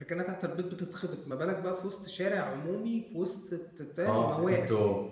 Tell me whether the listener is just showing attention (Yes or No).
No